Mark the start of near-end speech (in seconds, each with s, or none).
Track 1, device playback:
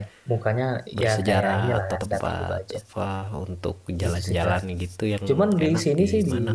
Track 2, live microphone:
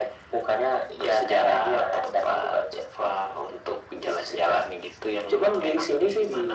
none